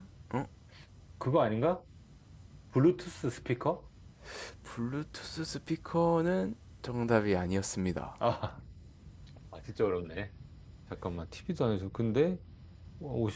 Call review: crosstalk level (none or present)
none